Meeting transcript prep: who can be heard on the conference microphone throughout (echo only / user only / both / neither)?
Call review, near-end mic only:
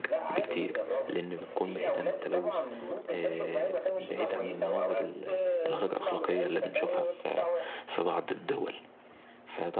both